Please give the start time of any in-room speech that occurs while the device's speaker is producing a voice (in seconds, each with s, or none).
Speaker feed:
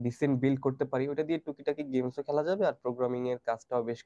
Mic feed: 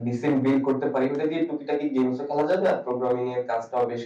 none